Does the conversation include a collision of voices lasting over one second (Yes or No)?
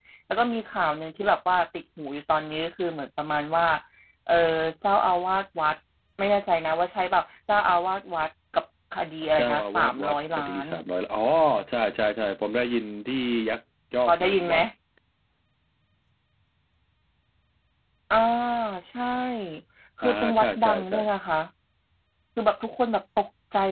Yes